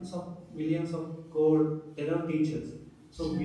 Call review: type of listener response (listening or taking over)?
listening